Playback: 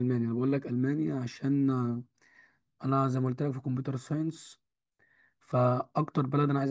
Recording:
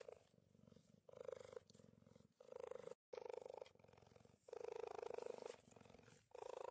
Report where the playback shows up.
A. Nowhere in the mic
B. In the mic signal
A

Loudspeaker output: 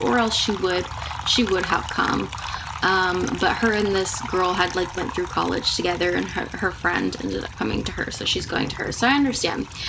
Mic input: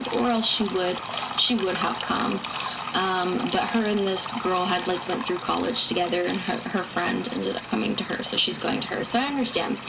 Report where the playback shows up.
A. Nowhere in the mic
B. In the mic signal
B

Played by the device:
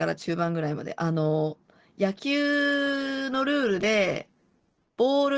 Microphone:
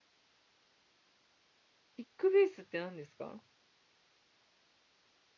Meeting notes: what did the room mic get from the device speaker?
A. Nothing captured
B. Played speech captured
A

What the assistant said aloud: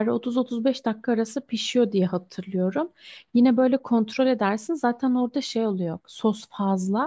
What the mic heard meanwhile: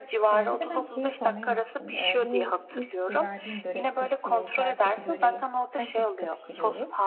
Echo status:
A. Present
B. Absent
A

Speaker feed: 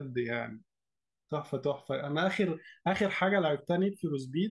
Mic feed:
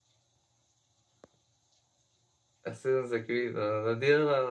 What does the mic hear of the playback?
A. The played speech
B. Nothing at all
B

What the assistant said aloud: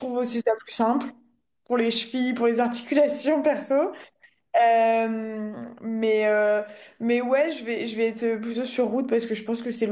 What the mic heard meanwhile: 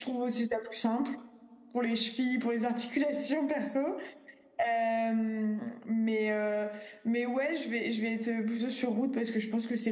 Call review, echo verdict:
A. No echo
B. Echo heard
B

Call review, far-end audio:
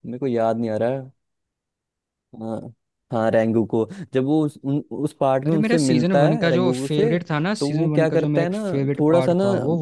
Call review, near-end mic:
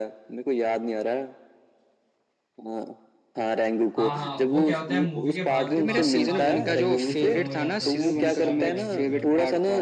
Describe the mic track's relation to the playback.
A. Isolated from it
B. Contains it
B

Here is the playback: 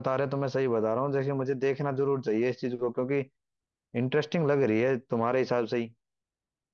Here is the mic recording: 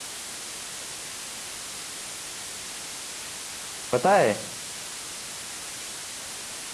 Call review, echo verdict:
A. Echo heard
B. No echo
B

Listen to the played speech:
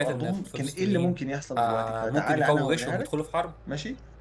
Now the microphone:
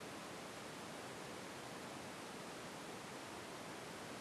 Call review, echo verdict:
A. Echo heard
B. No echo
B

